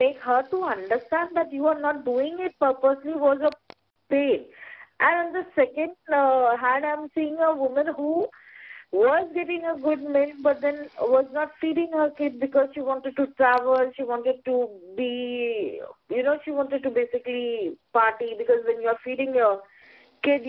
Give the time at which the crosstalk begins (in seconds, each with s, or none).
none